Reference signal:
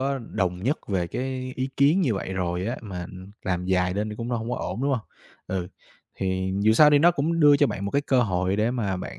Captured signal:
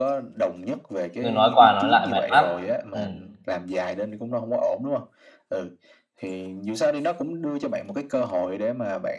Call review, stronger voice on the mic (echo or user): user